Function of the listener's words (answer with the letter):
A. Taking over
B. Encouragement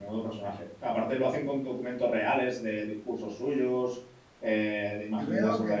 A